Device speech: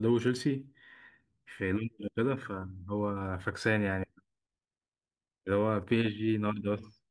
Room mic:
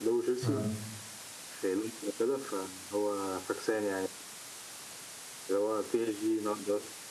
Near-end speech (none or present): present